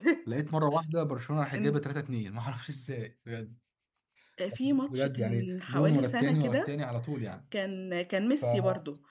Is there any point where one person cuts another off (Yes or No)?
Yes